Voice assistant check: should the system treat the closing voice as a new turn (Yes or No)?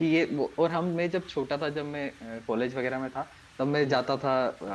No